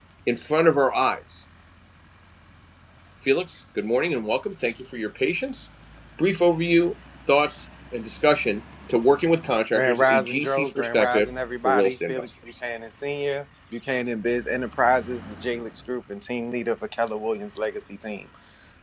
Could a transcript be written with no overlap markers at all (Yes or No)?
No